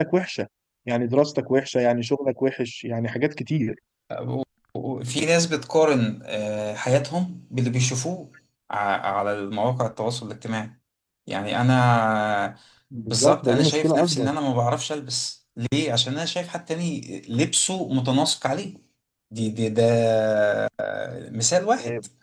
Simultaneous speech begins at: 13 s

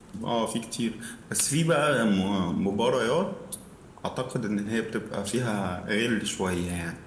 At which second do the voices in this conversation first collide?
none

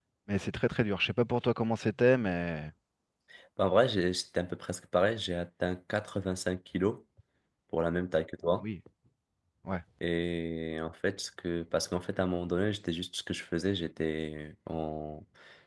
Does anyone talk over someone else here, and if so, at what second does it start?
none

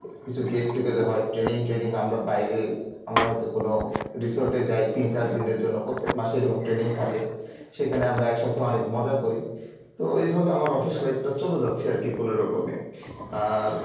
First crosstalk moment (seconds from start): none

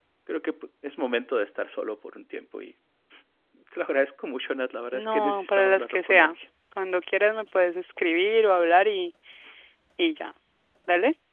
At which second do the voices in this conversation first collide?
5 s

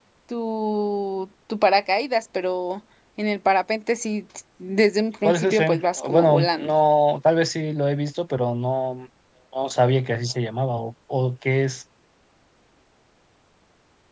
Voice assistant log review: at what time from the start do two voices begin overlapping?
5 s

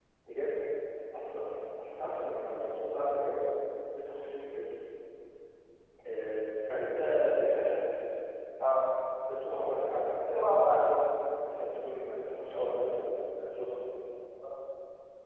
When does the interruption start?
10 s

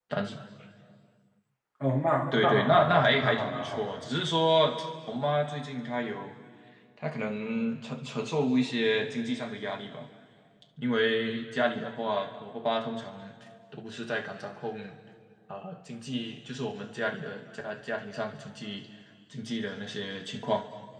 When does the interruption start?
2 s

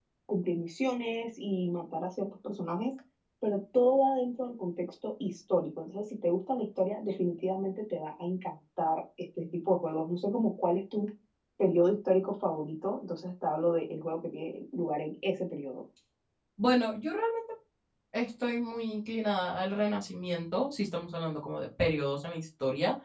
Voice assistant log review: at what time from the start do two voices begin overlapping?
none

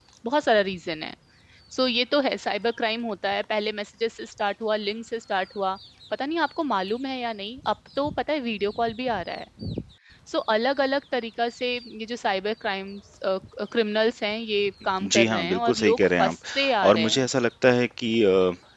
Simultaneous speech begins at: 15 s

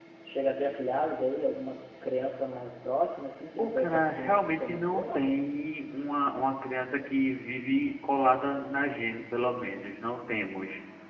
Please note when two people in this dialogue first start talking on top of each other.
4 s

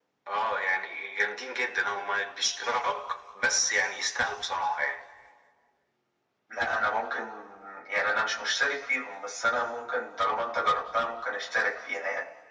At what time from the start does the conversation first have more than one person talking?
none

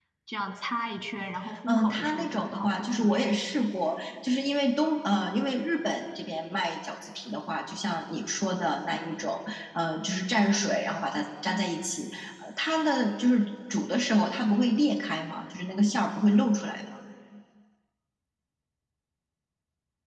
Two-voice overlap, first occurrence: 2 s

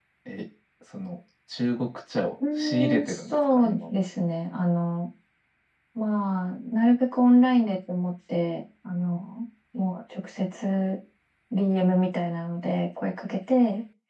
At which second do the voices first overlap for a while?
2 s

